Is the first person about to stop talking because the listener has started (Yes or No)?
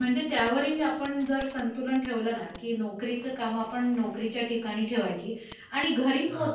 No